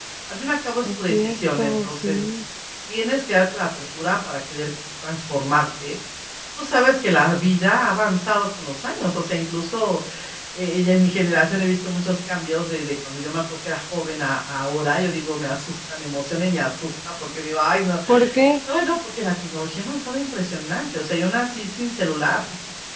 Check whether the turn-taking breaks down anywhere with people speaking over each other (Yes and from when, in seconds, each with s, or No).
Yes, from 0.8 s